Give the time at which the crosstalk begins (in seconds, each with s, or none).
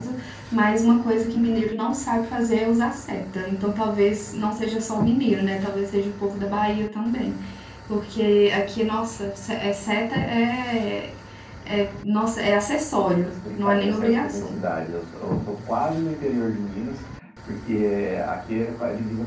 13.2 s